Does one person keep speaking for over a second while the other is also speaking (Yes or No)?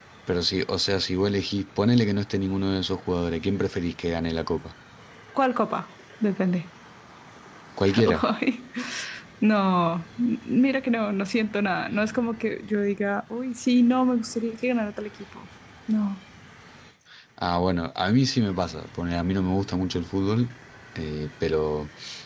No